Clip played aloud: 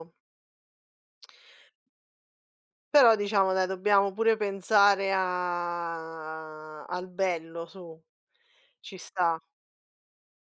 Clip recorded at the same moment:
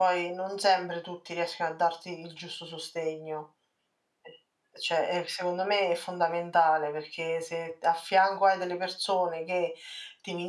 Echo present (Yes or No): No